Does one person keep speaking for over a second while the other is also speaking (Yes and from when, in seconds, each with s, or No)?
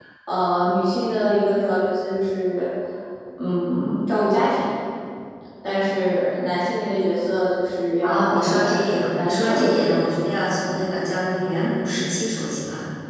Yes, from 8.0 s